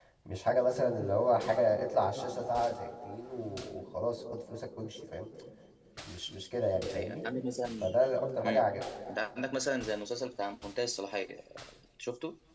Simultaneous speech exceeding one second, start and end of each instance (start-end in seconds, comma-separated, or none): none